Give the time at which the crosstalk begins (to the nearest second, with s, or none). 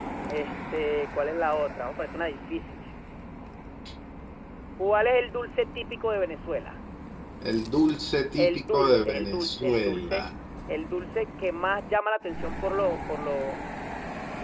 8 s